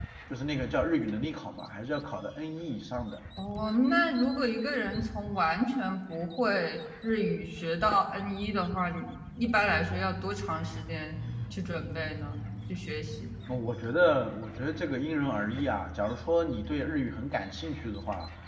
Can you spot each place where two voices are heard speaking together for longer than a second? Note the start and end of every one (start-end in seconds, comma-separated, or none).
none